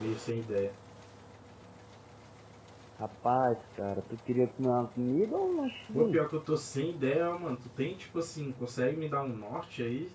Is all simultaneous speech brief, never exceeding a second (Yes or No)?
Yes